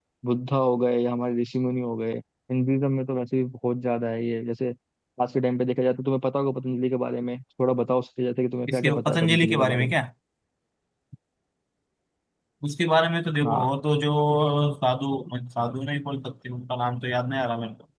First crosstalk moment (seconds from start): 8.7 s

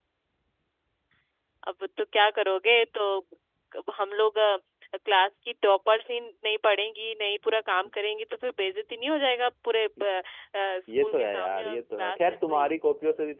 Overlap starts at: 11.0 s

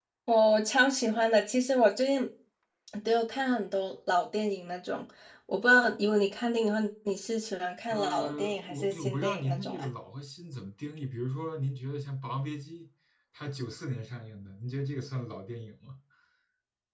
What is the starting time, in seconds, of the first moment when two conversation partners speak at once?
7.9 s

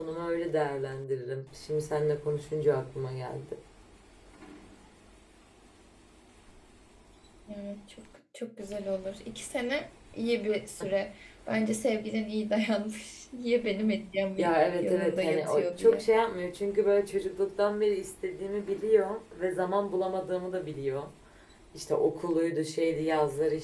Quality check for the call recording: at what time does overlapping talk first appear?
14.8 s

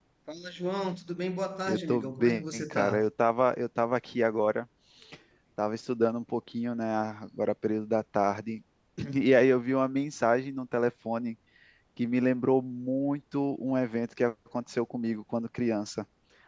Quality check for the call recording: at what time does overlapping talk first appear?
1.7 s

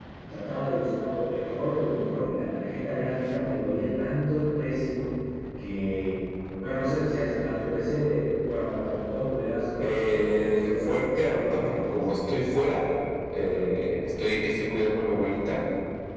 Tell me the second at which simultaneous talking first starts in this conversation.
9.8 s

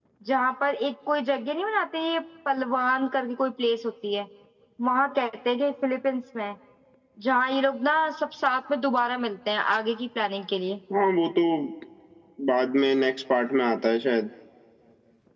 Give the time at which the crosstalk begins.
none

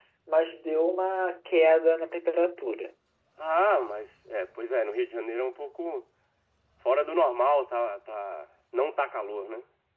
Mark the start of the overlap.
none

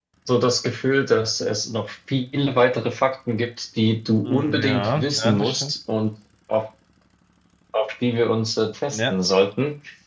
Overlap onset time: 4.2 s

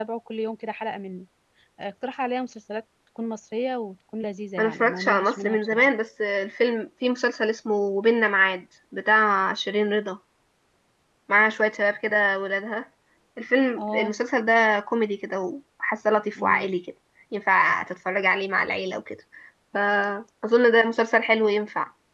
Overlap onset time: 4.6 s

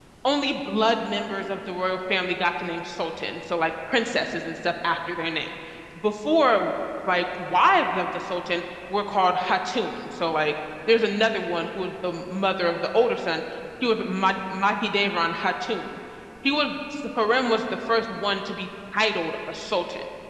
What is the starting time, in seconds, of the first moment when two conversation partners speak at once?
none

